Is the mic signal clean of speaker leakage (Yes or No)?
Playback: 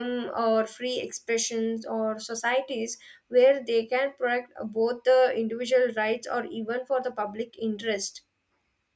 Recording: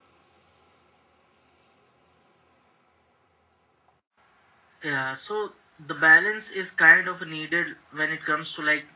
Yes